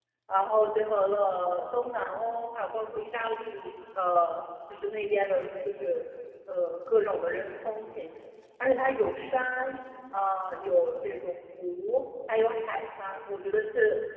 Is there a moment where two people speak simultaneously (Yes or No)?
No